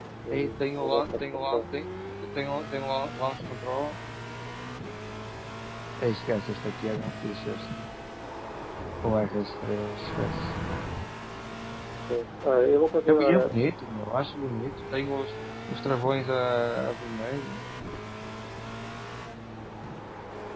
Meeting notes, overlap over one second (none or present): present